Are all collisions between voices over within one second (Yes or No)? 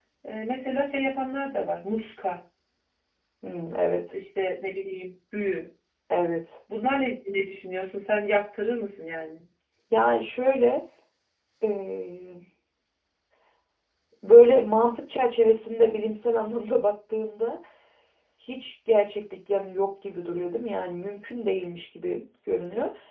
Yes